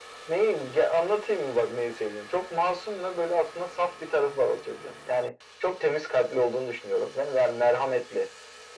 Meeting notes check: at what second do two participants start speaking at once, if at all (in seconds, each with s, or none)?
none